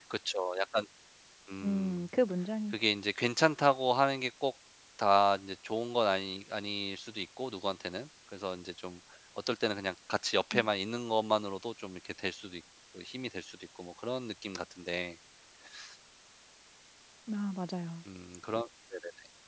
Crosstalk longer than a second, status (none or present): none